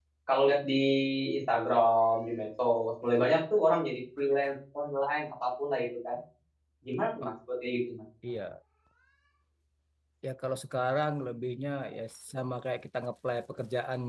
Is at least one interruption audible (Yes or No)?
No